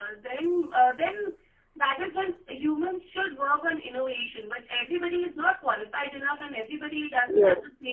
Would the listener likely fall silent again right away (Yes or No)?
Yes